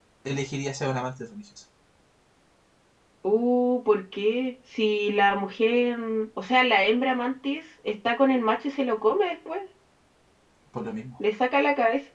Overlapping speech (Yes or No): No